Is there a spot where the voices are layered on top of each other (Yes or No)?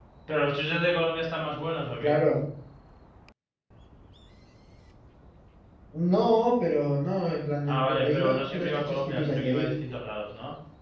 Yes